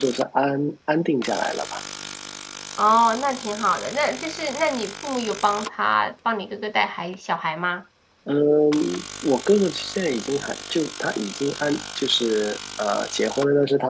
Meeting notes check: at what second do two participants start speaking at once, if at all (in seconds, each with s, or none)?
none